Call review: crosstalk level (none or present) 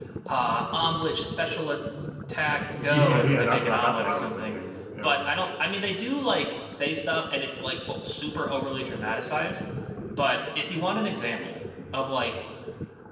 present